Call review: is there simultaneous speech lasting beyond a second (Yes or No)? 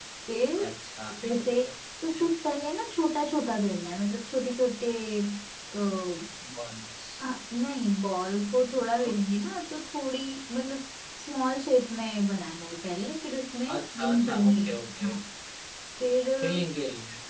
Yes